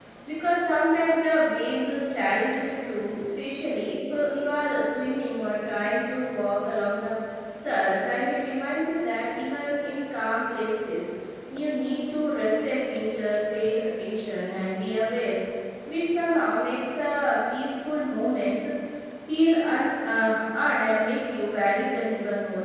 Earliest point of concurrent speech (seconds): none

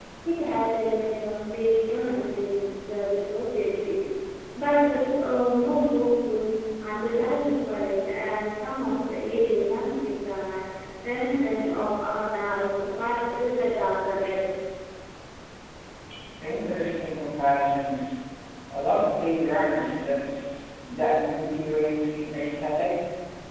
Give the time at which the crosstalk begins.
none

